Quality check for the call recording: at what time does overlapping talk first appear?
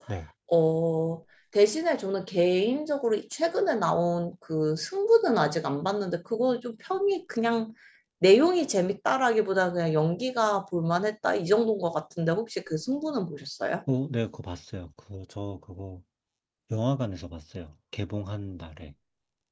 none

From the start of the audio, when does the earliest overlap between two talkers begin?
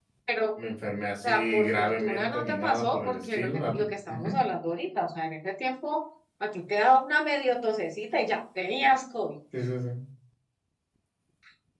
1.1 s

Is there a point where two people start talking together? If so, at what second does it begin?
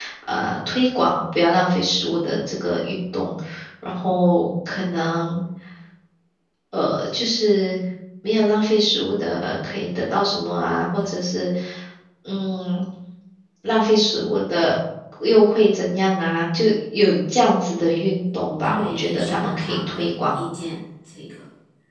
18.6 s

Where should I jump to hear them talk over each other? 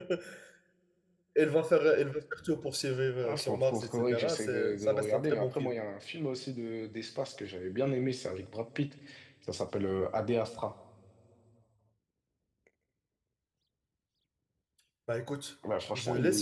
3.2 s

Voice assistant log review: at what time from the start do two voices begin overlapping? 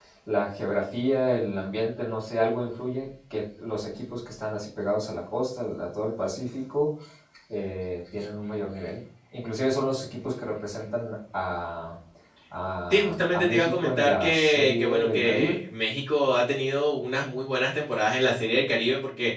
12.9 s

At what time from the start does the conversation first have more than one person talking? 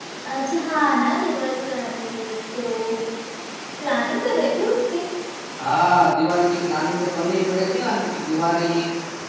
none

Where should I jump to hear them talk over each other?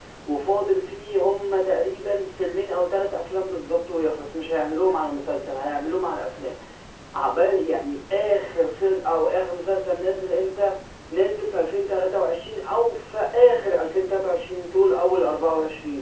none

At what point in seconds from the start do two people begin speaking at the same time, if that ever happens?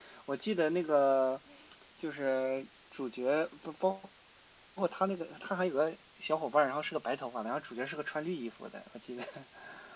none

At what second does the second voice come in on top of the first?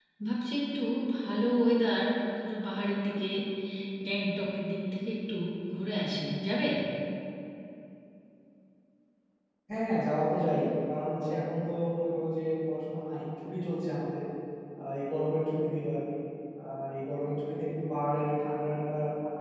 none

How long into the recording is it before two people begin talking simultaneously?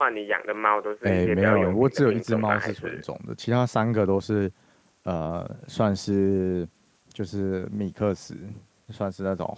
1.0 s

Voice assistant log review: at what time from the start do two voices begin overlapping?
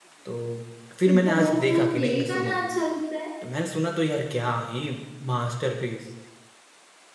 1.1 s

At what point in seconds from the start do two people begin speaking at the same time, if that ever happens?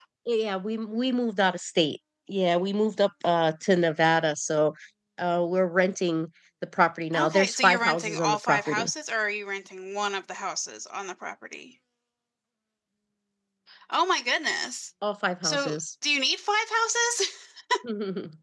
7.2 s

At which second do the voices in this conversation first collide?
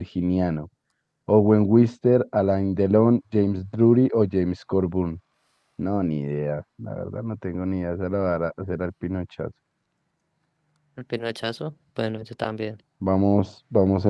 none

